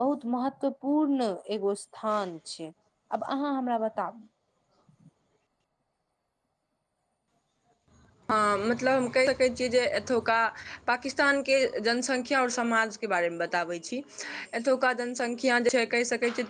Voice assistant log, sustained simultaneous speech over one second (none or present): none